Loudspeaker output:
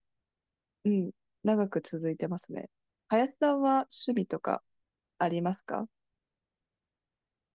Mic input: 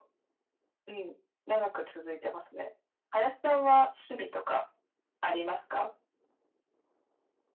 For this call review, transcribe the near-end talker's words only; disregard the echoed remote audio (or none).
none